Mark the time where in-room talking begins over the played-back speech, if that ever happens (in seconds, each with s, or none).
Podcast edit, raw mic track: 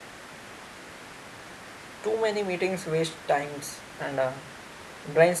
2.0 s